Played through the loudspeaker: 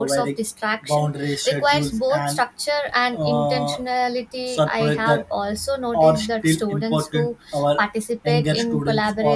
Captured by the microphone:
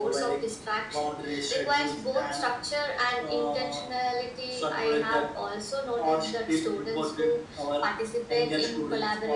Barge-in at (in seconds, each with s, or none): none